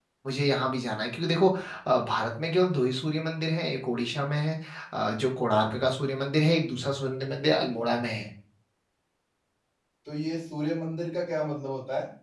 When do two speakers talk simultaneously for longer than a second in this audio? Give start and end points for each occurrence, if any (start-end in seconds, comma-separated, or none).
none